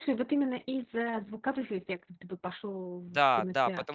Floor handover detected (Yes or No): Yes